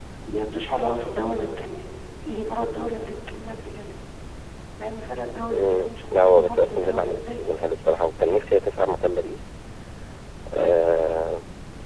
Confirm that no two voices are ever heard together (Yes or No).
No